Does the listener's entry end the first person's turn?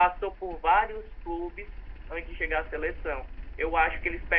No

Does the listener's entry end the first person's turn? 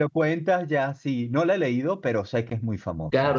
Yes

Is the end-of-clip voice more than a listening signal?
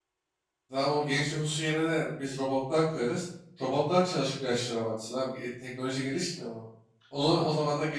No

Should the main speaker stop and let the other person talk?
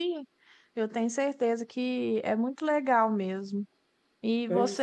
No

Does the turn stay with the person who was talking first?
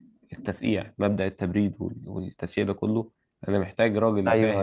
Yes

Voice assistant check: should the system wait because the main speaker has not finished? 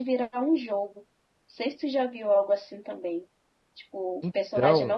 Yes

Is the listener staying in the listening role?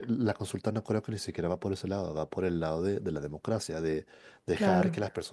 Yes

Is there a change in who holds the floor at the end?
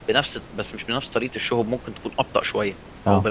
No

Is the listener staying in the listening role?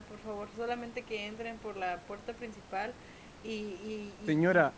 No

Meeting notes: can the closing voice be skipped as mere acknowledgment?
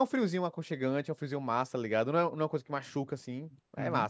No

